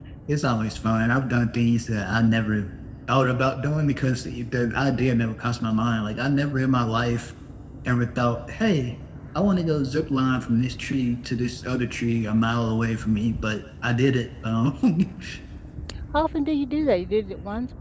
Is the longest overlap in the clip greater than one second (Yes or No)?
No